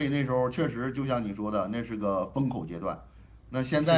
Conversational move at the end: listening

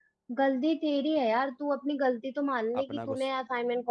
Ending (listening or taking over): listening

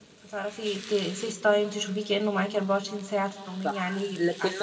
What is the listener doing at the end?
taking over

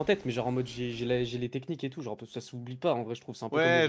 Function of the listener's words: taking over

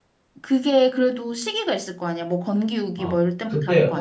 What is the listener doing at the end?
taking over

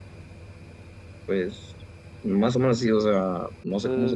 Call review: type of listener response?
taking over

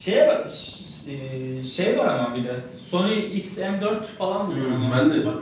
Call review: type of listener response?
taking over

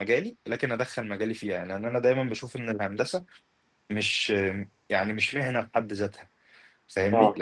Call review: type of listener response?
listening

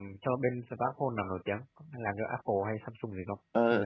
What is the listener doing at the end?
taking over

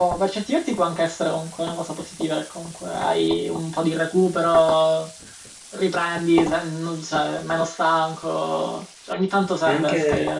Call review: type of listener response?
taking over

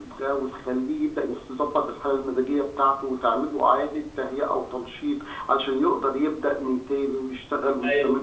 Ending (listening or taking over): taking over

